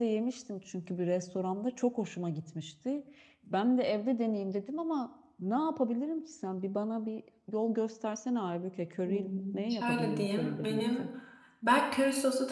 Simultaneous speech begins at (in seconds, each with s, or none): 9.0 s